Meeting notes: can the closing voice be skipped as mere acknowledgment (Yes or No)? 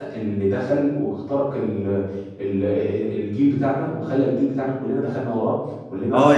No